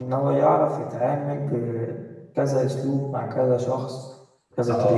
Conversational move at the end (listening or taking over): taking over